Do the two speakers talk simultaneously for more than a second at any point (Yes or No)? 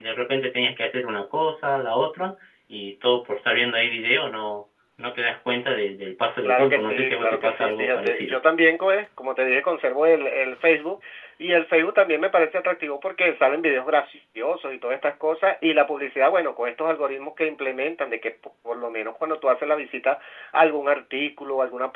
Yes